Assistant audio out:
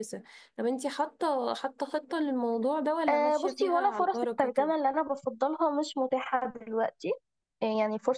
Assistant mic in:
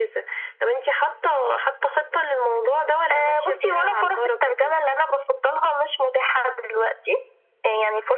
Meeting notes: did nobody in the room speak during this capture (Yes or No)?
Yes